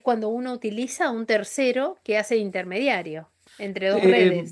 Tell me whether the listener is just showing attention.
No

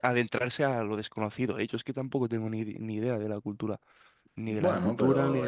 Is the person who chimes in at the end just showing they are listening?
No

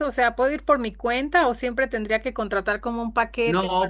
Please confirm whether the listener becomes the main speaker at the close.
Yes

